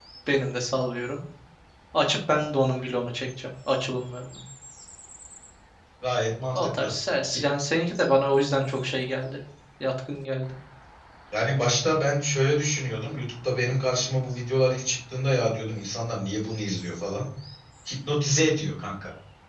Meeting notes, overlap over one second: none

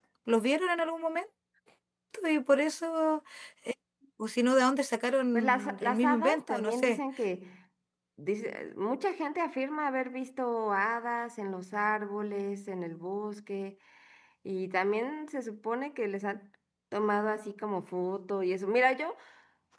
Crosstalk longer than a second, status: present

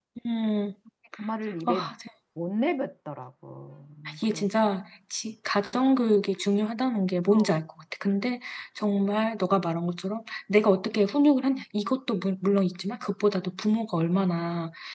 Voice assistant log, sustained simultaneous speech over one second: none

